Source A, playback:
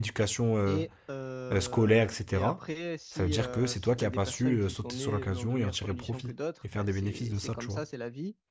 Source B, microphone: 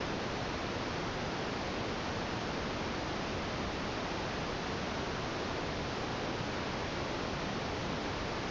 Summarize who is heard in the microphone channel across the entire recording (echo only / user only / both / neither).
neither